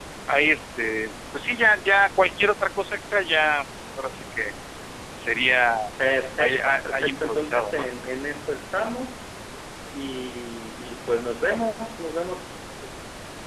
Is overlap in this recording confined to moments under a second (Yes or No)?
No